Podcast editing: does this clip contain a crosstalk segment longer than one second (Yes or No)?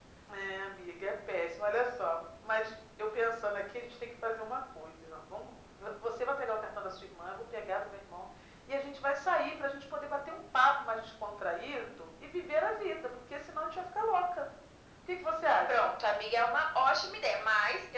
No